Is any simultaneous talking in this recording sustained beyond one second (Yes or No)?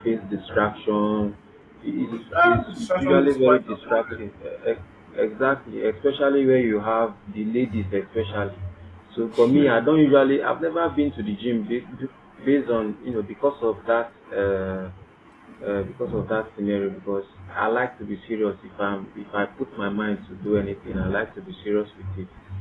Yes